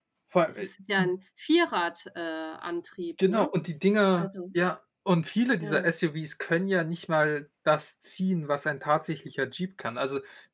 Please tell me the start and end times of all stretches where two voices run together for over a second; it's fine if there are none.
none

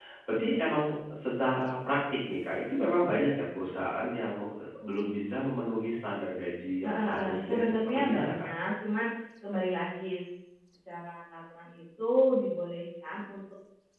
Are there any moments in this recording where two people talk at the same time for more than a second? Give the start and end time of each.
6.8-8.5

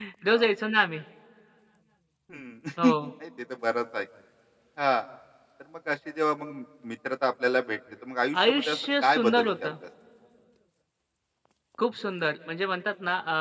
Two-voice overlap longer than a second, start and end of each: 8.4-9.7

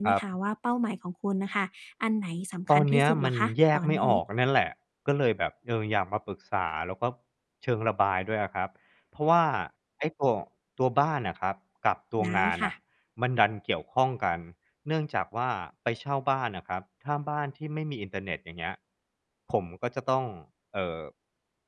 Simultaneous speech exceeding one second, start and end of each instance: 2.7-4.1

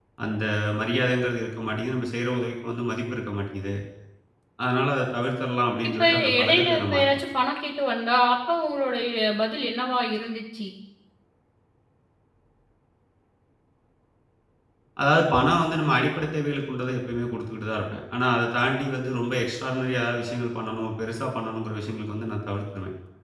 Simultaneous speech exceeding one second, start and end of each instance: 5.9-7.2

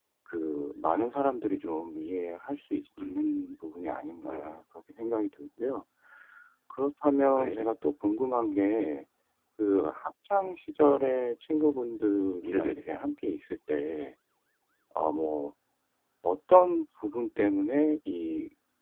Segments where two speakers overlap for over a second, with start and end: none

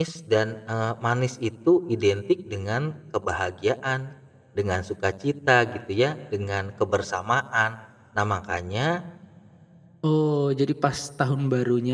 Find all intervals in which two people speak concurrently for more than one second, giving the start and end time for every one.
none

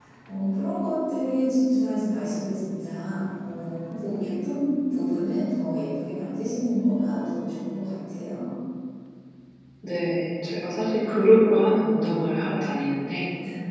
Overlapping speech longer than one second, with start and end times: none

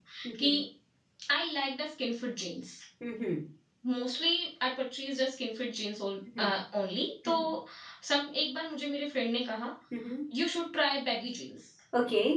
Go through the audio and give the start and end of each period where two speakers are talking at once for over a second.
none

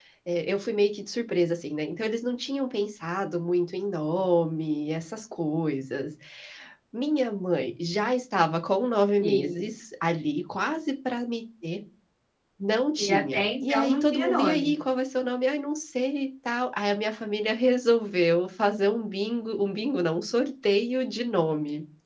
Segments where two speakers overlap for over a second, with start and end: 13.0-14.7

